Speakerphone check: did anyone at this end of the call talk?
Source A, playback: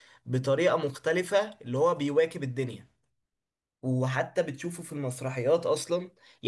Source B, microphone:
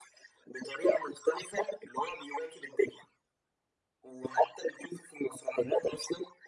No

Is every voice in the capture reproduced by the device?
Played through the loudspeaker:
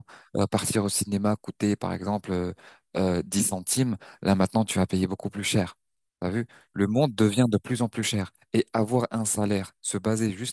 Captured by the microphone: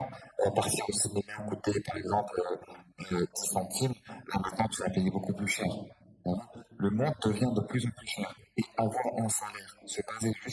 Yes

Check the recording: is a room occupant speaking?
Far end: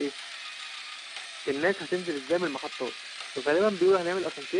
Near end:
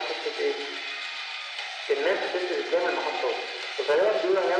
No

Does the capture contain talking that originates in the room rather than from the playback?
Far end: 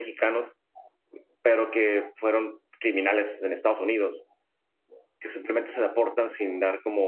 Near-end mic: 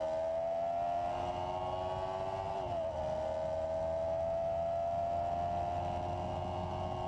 No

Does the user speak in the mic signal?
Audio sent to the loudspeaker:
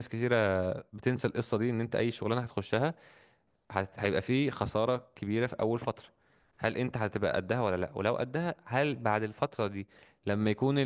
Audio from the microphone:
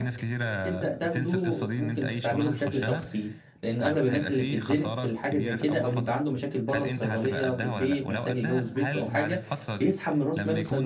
Yes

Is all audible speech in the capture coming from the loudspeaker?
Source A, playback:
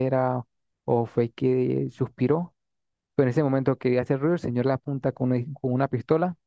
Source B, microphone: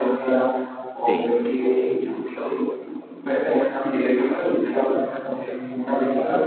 No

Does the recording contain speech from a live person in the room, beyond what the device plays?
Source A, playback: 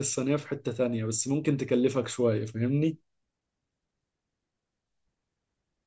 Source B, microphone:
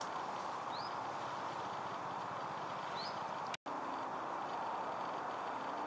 No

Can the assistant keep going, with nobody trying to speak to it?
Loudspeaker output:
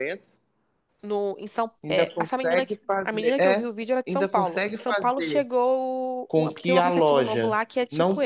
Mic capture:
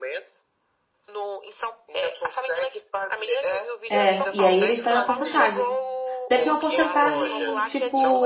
No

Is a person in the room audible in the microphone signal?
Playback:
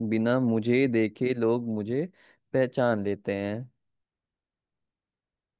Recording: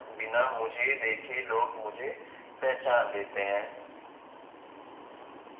No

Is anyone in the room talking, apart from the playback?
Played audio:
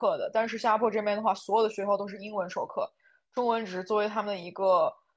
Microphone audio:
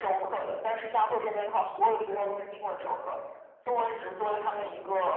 No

